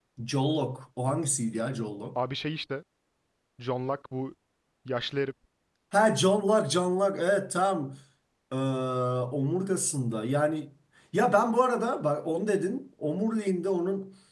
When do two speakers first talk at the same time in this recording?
none

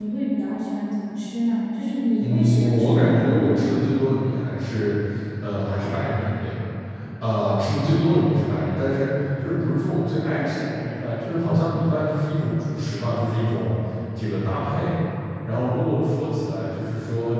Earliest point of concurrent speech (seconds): 2.2 s

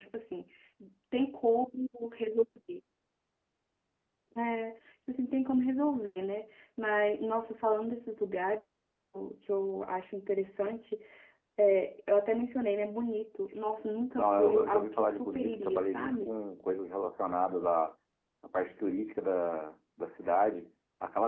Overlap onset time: 14.2 s

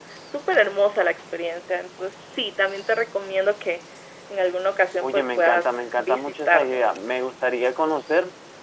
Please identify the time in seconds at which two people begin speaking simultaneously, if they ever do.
5.0 s

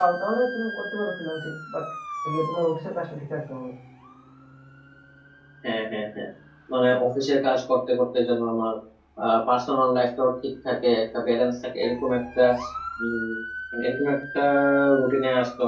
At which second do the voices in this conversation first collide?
none

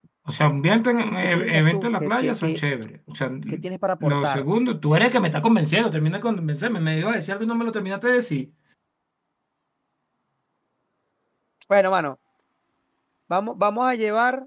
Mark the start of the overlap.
1.2 s

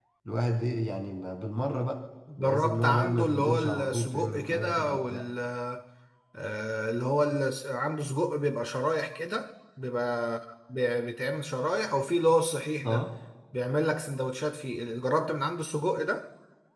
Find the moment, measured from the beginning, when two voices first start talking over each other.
2.3 s

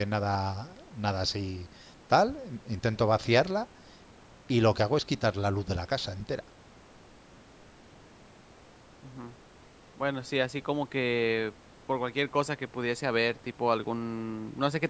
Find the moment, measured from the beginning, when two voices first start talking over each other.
none

